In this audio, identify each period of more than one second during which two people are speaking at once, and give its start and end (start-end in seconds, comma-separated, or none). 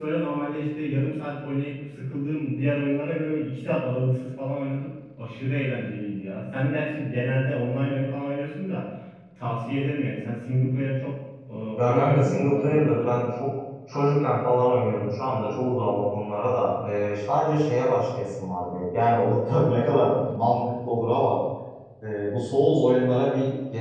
11.8-13.2